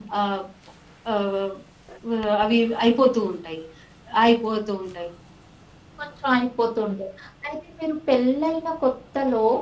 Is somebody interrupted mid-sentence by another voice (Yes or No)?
No